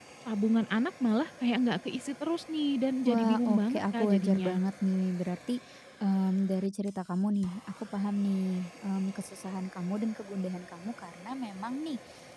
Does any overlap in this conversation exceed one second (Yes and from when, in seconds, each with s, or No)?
Yes, from 3.0 s